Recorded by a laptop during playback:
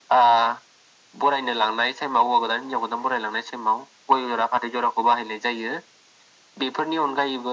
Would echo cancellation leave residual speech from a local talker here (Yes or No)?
No